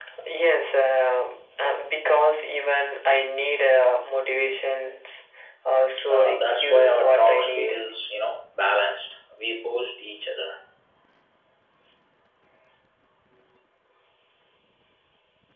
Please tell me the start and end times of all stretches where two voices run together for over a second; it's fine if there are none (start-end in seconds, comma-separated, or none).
6.1-7.8